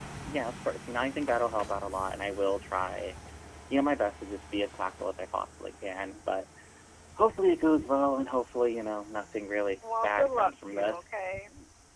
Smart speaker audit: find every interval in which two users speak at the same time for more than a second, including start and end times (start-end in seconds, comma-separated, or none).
10.0-11.3